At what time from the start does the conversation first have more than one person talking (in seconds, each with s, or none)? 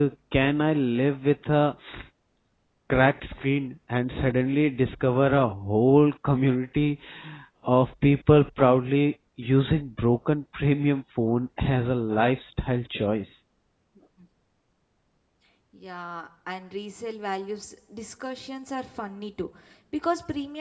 none